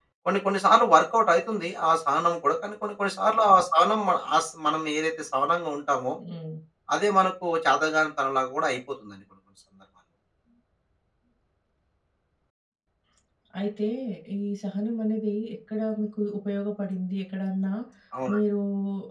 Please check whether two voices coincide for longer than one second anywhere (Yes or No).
No